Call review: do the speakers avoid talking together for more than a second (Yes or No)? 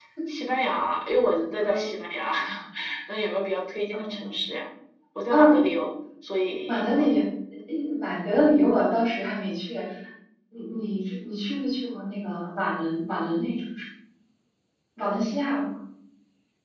Yes